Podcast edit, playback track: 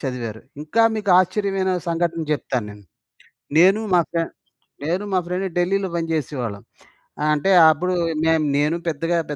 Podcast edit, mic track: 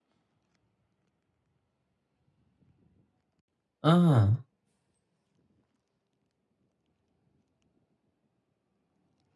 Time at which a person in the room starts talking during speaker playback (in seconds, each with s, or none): 3.8 s